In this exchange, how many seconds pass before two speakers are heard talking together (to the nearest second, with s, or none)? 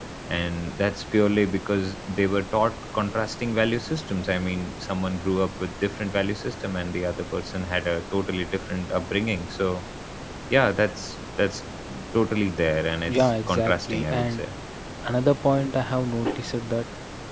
13 s